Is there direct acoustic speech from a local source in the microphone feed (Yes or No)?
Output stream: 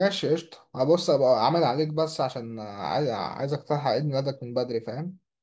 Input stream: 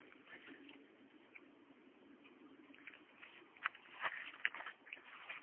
No